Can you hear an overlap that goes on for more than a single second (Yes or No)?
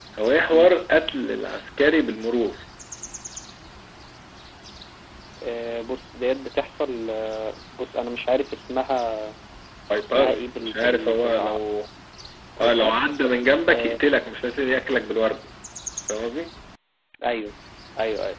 Yes